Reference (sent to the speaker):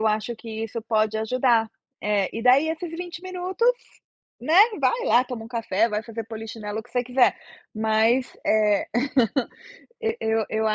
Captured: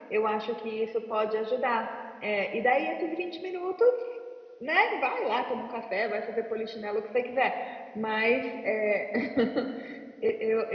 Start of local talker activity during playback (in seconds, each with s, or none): none